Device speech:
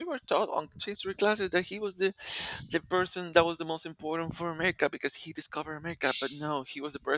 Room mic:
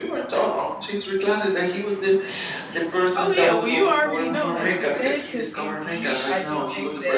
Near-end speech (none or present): present